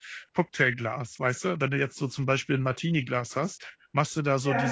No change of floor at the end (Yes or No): Yes